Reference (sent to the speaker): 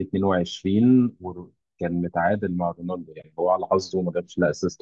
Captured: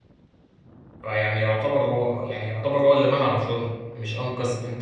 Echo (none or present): none